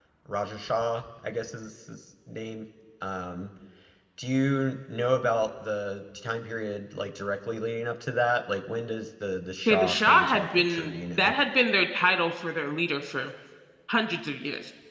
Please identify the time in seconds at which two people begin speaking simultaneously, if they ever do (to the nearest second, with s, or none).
10 s